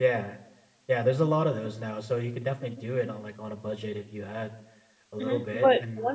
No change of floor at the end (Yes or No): No